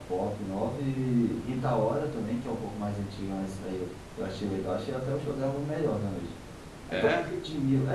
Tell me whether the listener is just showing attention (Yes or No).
Yes